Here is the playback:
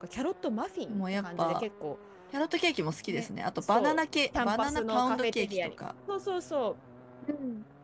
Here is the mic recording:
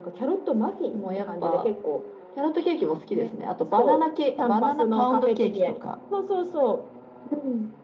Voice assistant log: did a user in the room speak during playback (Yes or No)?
No